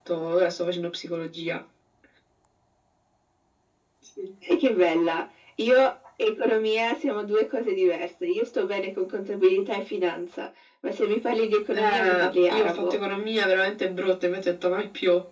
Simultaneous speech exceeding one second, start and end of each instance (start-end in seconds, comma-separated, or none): 11.7-13.0